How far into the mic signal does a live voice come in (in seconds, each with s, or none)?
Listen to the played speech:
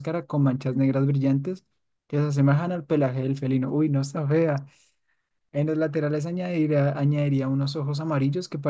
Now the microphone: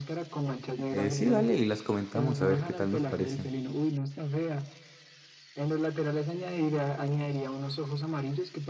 0.9 s